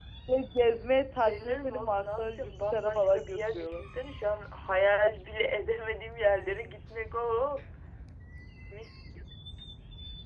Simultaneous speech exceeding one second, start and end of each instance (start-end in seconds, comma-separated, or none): 1.2-3.8